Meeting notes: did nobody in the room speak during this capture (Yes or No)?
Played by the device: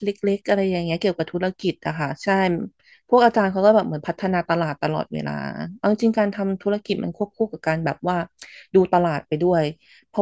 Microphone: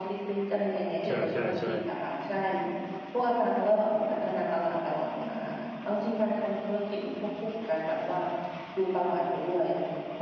No